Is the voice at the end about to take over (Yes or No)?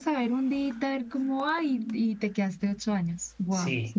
Yes